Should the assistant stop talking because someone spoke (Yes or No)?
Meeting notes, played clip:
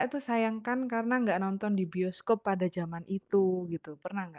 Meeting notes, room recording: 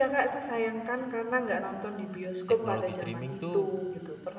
Yes